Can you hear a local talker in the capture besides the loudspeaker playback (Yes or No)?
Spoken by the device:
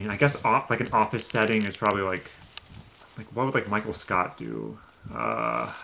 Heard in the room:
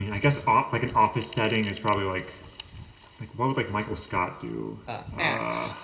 Yes